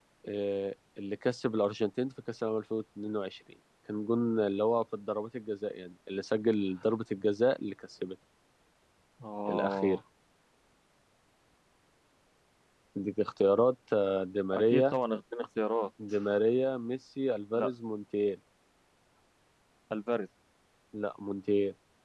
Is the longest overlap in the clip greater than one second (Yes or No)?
No